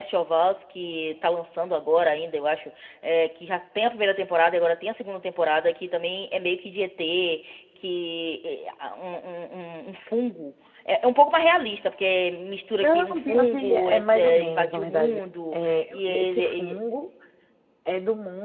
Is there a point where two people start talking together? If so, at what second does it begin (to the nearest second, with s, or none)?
13 s